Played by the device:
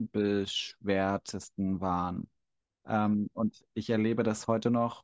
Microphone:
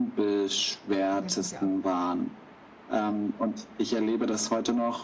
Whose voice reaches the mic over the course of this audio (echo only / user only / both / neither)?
both